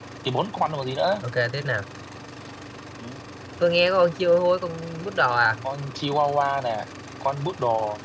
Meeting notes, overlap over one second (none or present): none